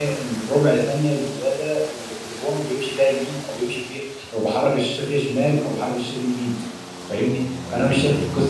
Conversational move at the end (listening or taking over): listening